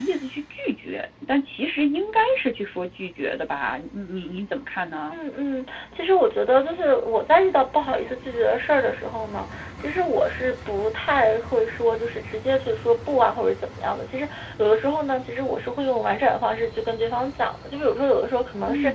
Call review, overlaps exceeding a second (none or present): none